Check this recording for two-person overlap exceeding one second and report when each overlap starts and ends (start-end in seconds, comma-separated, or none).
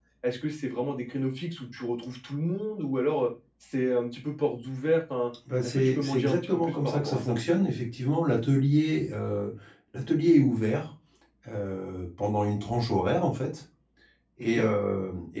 5.6-7.4